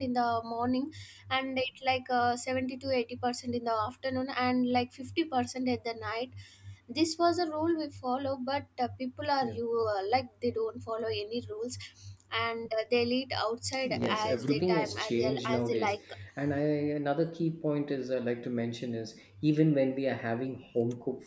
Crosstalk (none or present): present